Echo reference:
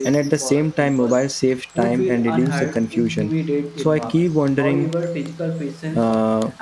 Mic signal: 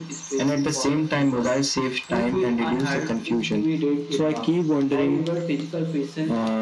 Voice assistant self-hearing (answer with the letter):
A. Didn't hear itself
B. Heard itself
B